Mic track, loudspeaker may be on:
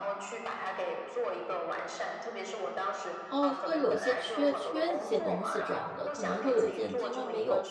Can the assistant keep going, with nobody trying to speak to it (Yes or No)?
No